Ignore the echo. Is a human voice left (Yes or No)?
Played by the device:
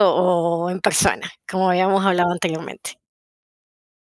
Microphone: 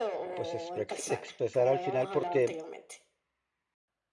Yes